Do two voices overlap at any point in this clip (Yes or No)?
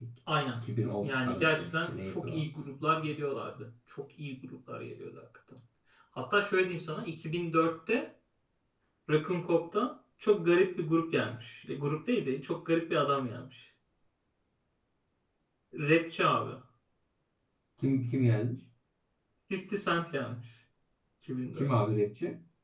Yes